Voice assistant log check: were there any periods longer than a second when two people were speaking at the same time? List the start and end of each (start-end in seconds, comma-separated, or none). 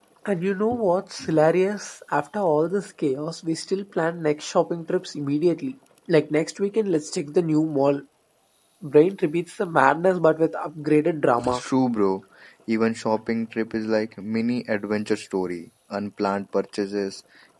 none